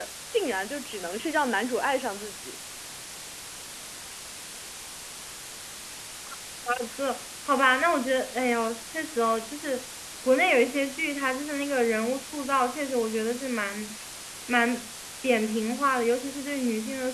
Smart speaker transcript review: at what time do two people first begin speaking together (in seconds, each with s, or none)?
none